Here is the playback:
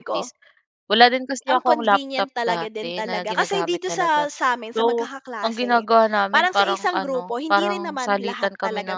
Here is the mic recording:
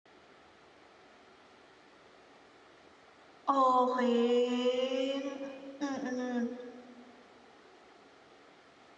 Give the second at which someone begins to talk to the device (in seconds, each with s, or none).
3.5 s